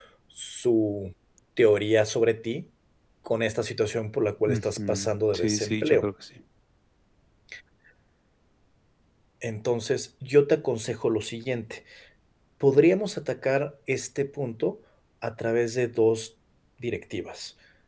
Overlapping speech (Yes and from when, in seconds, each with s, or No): Yes, from 4.5 s